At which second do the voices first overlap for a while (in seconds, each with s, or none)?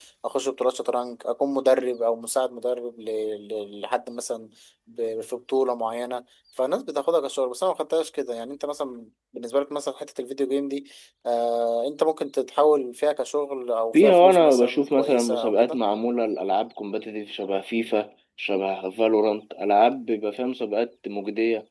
13.9 s